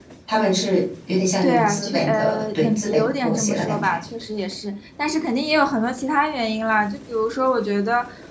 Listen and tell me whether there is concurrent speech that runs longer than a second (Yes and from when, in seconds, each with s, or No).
Yes, from 1.4 s